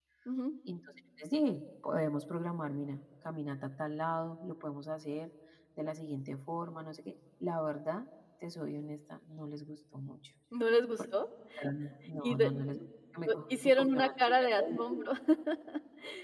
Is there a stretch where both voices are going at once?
Yes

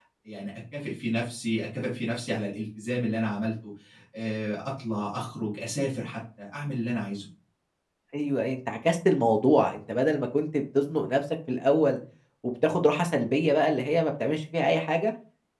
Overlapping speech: No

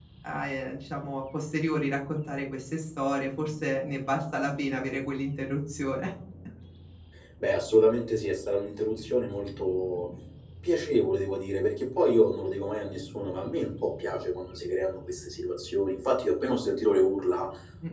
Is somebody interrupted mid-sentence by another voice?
No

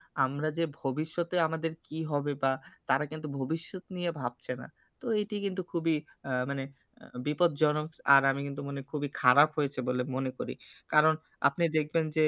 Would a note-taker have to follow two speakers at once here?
No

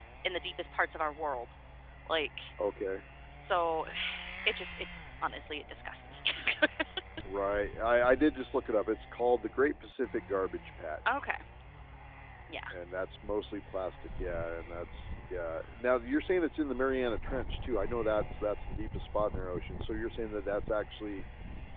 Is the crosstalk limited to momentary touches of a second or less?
Yes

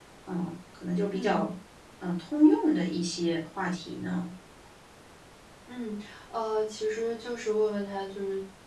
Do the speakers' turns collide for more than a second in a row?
No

